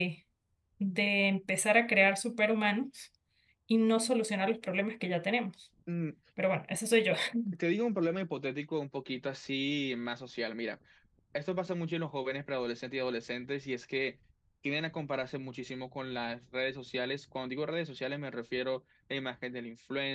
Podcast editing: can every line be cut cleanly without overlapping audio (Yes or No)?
Yes